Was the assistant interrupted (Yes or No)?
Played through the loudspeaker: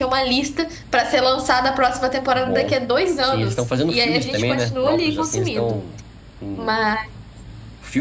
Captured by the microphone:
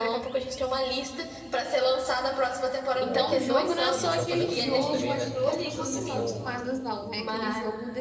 Yes